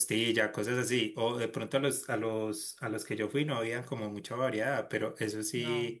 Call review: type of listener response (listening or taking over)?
listening